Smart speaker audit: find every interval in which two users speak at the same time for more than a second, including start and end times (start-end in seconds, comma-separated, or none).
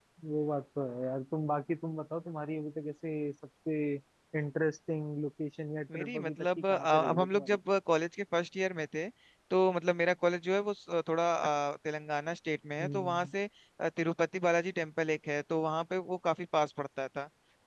5.9-7.6